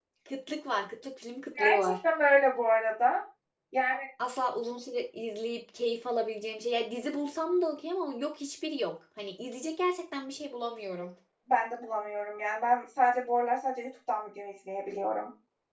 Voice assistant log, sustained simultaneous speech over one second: none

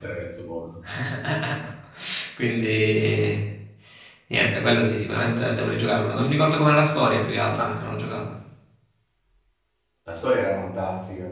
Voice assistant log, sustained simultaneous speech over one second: none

